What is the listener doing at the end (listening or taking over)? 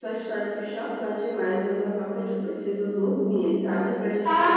taking over